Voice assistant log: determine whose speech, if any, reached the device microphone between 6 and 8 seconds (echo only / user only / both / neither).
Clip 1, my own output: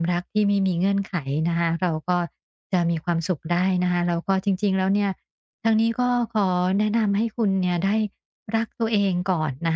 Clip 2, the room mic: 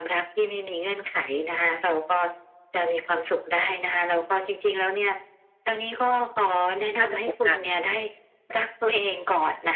both